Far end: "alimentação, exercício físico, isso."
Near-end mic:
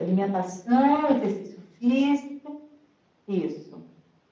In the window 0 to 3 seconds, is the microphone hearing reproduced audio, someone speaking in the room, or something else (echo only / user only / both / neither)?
echo only